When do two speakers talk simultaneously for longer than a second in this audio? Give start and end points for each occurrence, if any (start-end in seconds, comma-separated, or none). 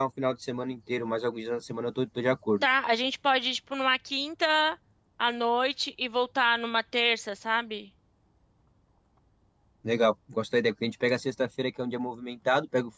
none